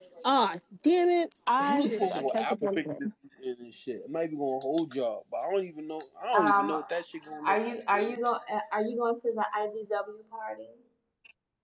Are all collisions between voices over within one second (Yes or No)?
No